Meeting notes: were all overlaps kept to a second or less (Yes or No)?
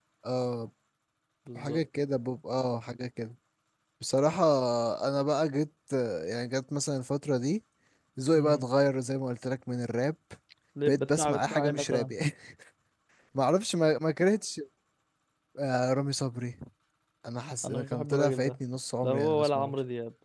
No